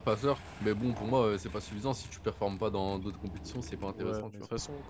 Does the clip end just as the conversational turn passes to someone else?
Yes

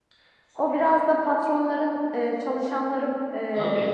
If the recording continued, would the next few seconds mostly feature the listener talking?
No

